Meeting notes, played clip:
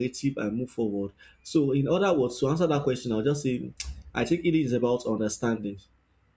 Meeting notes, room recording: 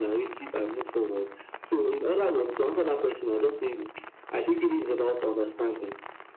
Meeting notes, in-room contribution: none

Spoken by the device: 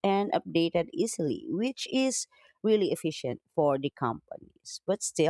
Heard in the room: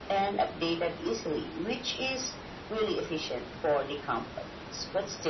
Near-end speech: none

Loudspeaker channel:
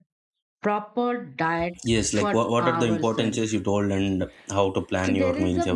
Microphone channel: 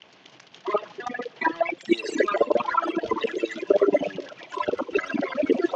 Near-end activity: none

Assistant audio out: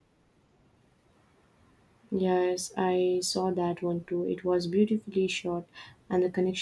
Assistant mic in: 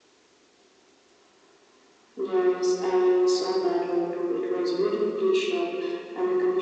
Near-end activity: none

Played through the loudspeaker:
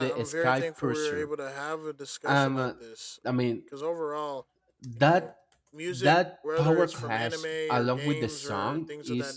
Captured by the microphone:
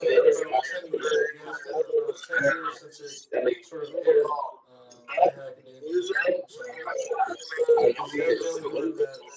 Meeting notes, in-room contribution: present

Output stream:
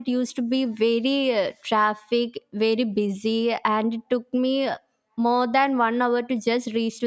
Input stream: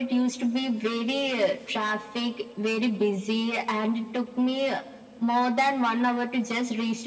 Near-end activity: none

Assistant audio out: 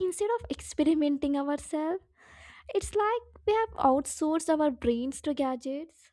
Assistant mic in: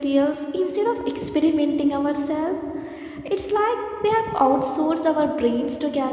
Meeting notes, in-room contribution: none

